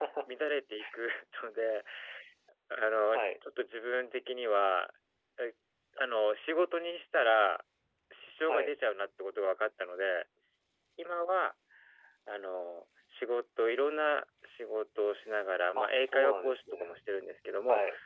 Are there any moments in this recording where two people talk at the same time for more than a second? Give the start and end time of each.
15.8-17.0

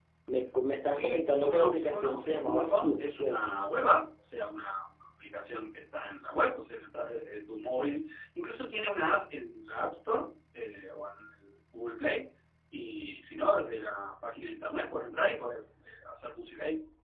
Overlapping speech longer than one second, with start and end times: 0.9-3.3

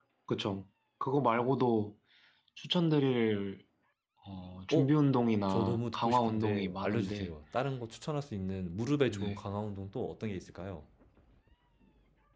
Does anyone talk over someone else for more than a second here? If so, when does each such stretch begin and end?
5.5-7.3

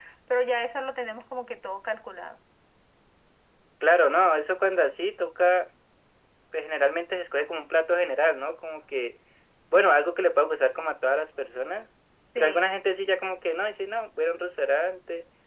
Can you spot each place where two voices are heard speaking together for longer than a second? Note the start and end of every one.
none

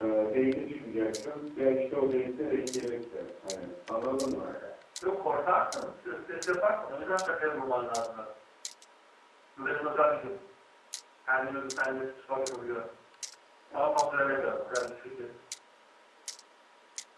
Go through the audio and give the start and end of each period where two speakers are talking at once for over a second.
none

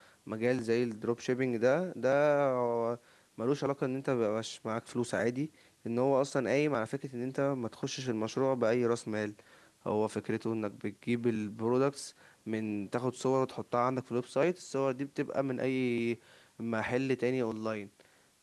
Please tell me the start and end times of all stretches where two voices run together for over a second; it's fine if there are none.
none

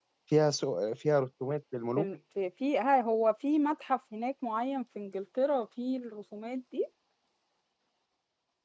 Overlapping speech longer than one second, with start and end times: none

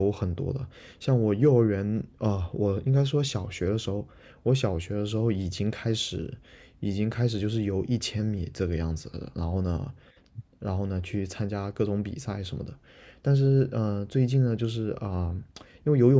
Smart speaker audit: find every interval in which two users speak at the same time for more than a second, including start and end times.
none

